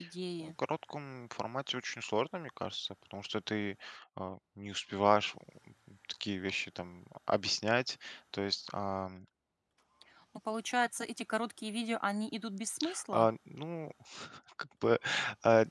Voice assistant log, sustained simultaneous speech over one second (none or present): none